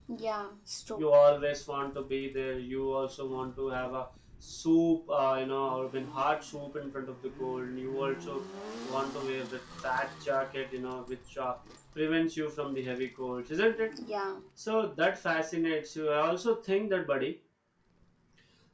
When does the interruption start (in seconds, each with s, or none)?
none